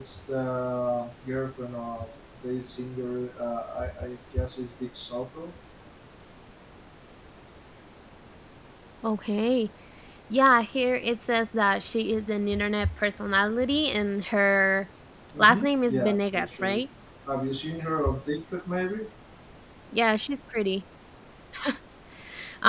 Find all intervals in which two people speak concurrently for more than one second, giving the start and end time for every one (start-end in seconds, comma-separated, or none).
15.4-16.8